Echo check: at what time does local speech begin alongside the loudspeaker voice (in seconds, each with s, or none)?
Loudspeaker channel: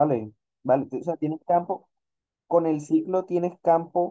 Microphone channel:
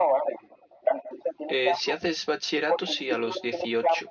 1.5 s